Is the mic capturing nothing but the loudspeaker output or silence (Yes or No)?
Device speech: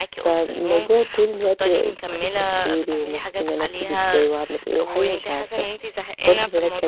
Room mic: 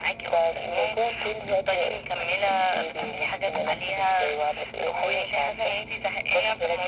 Yes